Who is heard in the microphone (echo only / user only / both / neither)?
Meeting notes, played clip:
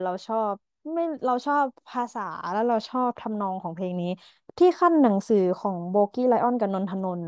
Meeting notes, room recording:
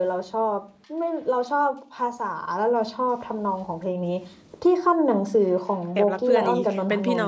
both